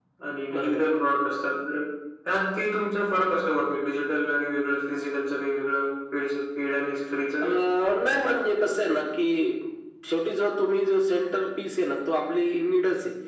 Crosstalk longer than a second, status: none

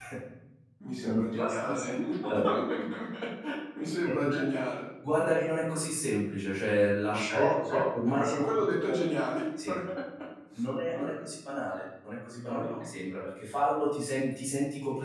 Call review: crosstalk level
present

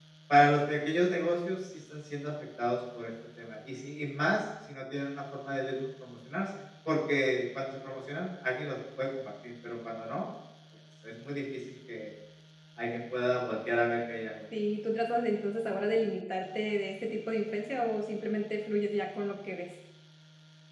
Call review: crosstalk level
none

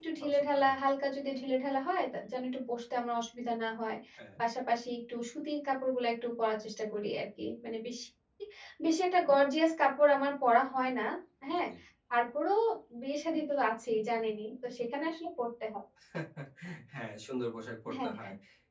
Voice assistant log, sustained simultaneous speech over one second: none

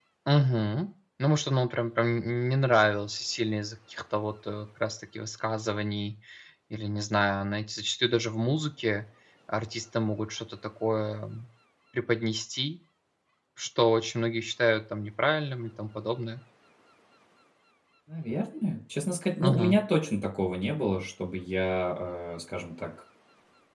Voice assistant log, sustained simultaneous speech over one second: none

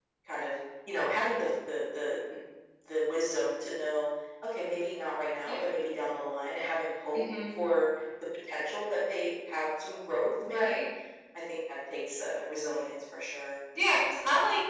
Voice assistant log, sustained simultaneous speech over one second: none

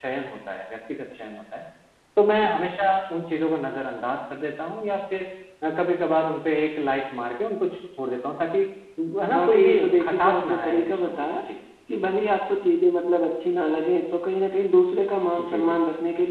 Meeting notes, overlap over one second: present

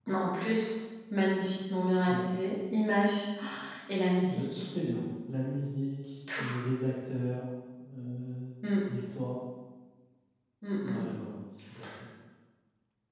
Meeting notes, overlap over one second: none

